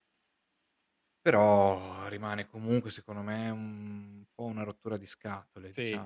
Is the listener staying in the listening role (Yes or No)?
No